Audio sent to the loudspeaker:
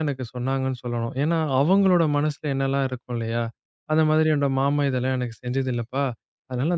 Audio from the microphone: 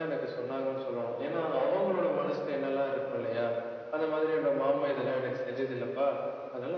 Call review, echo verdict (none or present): present